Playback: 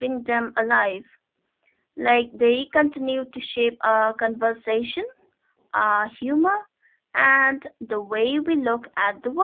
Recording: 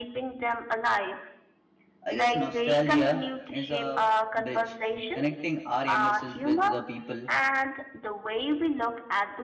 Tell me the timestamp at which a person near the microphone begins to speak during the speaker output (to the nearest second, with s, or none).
2 s